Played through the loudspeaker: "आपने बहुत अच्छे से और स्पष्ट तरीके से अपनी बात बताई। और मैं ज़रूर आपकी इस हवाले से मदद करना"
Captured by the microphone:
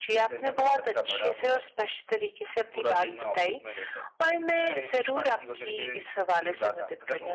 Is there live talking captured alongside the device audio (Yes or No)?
Yes